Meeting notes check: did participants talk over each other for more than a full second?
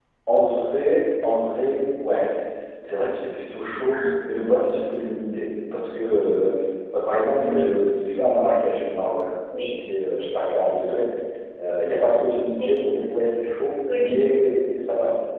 No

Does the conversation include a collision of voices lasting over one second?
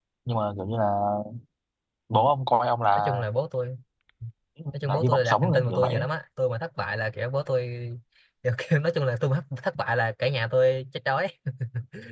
Yes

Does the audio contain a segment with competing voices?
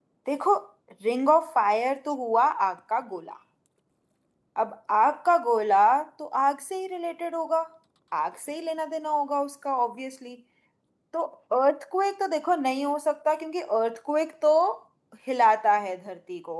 No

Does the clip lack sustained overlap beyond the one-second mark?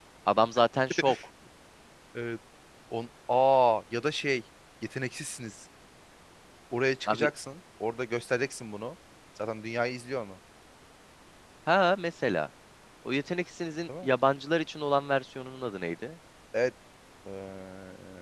Yes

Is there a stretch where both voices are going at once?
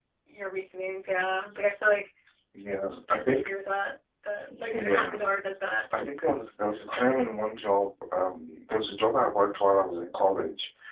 Yes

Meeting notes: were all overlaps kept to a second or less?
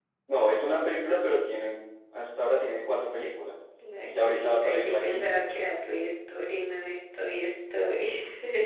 No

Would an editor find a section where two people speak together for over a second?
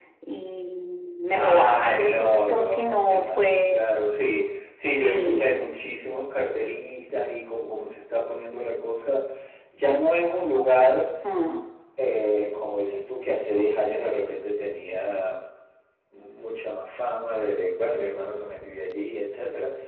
Yes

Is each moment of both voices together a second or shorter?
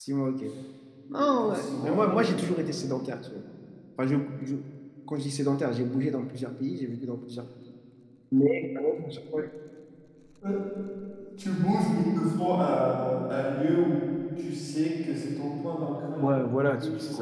No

